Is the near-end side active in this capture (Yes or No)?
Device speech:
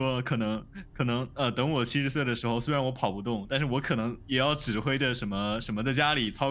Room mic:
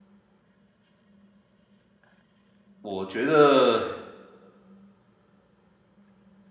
Yes